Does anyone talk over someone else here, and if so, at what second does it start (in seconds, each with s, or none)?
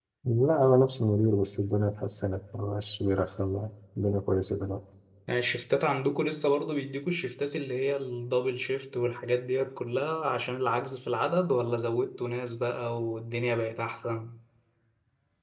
none